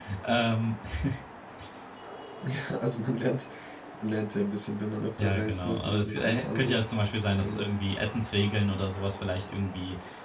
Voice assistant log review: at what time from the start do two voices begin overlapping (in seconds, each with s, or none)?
5.2 s